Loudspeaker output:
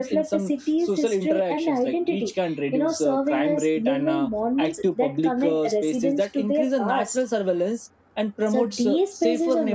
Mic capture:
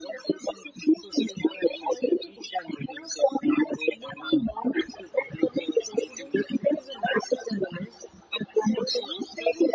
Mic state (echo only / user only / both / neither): echo only